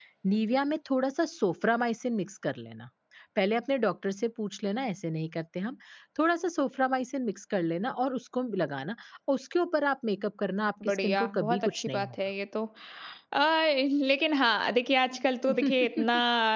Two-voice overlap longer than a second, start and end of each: 10.9-12.1

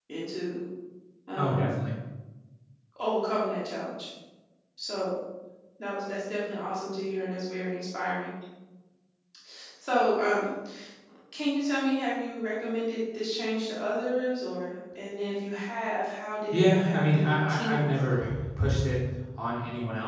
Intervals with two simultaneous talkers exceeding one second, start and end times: 16.5-17.9

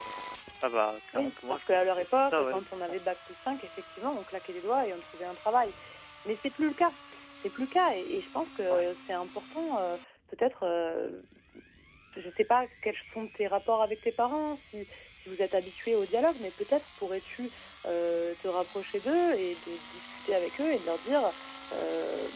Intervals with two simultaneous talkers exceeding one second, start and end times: 1.1-3.1

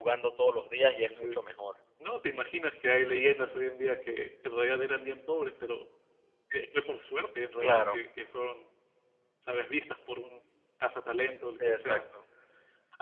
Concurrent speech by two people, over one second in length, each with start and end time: none

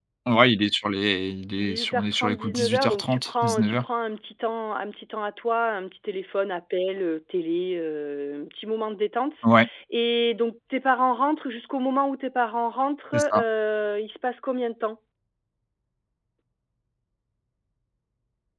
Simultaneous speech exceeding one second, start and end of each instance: 1.6-3.9

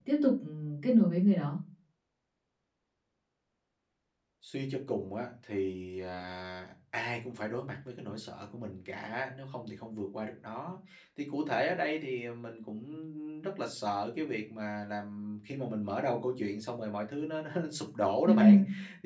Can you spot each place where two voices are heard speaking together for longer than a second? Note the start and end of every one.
none

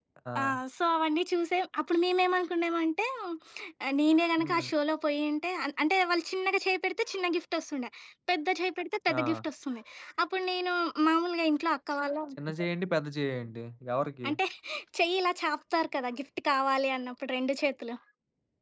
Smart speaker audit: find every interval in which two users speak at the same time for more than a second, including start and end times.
none

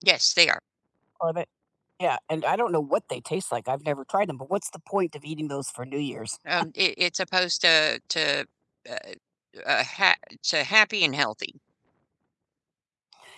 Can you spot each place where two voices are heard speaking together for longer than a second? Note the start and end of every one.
none

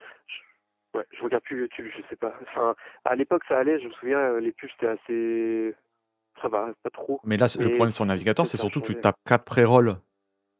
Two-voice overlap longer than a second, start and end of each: 7.6-9.0

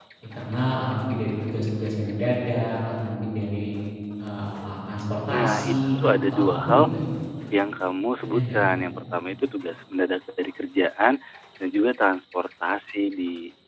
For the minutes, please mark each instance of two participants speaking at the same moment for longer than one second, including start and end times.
5.3-6.8

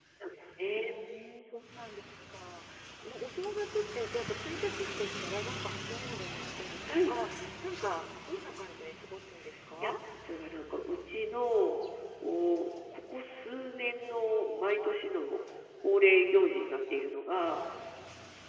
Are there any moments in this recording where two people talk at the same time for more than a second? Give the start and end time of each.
none

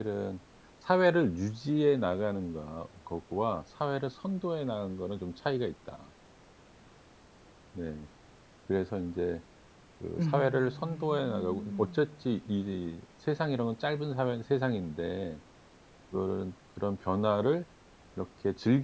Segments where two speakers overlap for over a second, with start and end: 10.2-12.1

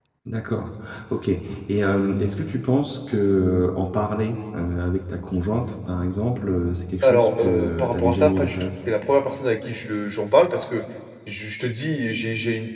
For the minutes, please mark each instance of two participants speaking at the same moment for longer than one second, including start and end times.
7.0-8.6

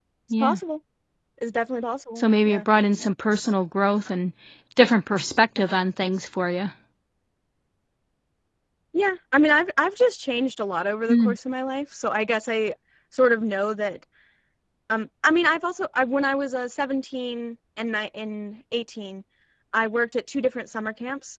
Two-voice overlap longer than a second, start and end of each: none

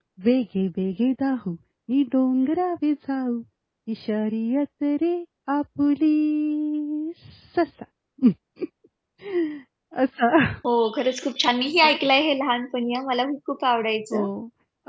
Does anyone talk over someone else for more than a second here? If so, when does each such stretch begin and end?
none

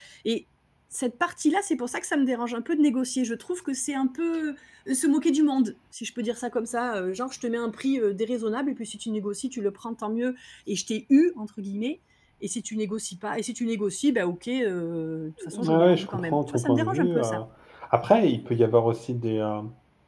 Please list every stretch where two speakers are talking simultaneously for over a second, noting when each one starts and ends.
15.5-17.4

